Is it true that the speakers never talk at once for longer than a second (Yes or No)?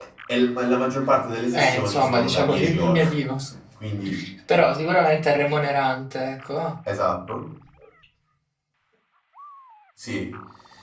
No